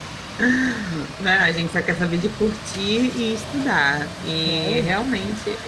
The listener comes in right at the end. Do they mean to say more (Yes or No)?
No